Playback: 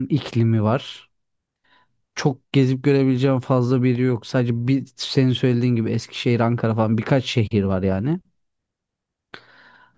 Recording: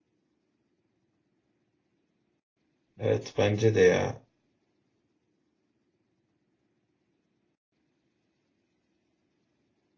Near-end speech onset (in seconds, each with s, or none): 3.0 s